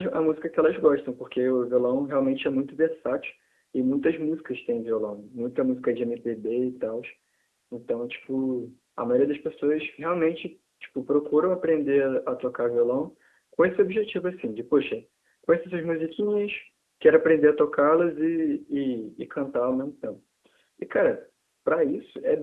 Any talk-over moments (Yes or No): No